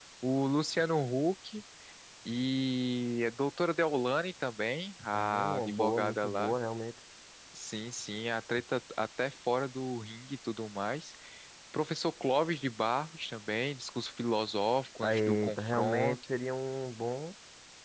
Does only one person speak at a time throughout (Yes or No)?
No